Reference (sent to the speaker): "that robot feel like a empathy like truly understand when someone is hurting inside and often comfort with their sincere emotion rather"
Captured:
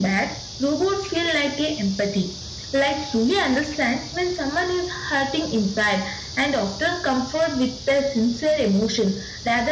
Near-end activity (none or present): none